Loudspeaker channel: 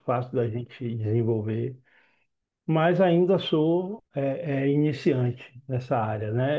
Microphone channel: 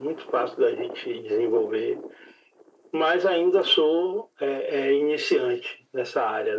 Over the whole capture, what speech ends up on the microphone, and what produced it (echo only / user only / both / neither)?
echo only